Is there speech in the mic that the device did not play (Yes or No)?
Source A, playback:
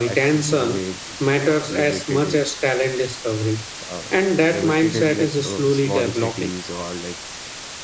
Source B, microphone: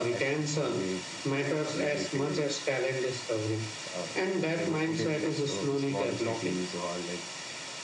No